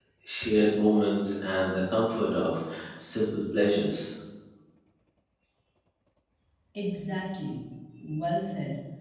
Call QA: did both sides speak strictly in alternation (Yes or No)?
Yes